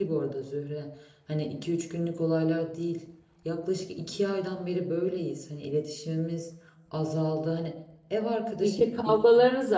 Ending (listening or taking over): taking over